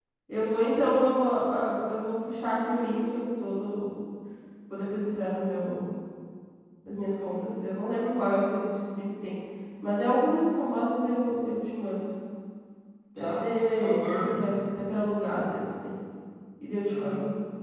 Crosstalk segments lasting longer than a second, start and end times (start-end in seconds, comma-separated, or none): 13.2-14.4